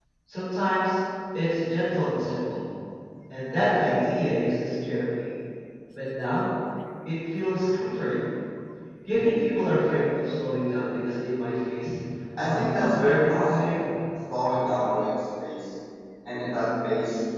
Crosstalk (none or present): present